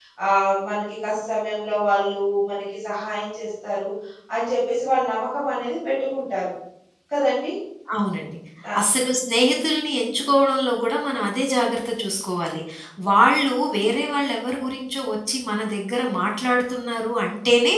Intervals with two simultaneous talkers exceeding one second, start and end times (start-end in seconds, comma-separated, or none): none